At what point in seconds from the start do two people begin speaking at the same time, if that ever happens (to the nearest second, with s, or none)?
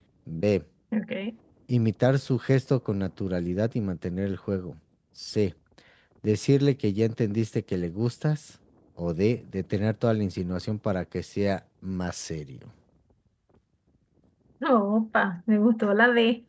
none